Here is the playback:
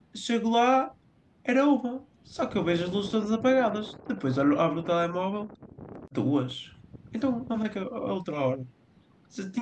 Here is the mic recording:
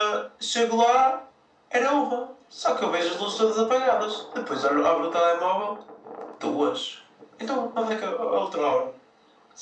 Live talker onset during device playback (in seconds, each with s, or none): none